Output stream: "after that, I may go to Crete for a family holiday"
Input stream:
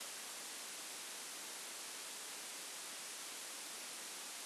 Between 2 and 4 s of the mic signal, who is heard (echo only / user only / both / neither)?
neither